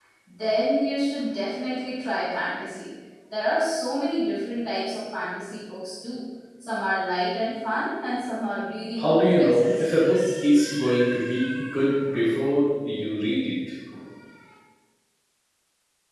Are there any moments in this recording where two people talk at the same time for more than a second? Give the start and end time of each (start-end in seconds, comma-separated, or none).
9.0-10.3